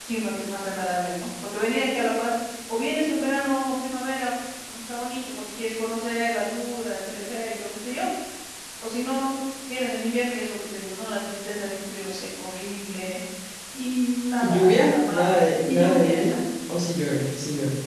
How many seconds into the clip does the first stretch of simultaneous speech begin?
14.4 s

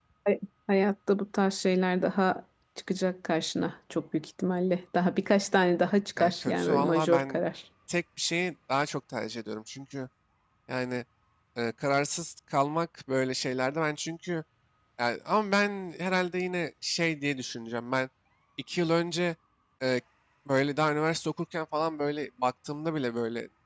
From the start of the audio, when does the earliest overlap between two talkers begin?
6.2 s

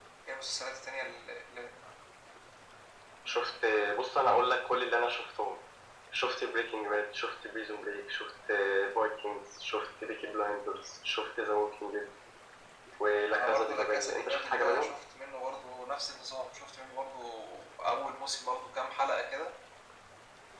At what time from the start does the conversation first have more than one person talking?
13.3 s

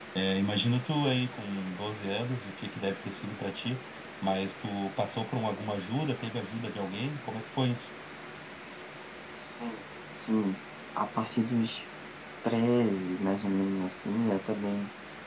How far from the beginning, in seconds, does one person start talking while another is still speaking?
none

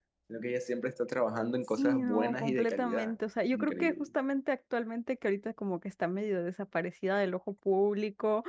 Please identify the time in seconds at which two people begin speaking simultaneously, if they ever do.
1.8 s

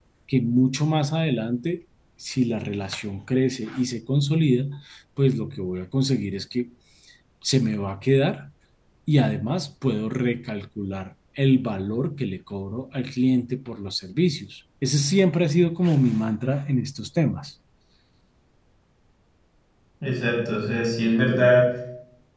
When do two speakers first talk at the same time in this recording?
none

